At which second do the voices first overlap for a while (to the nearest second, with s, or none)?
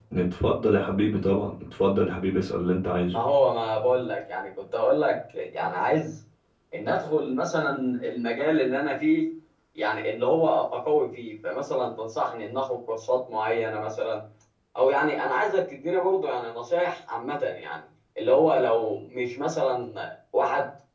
none